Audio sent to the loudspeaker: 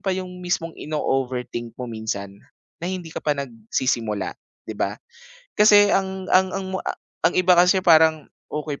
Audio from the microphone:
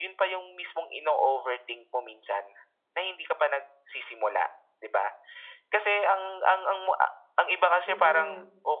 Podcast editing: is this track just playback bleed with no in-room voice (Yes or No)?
No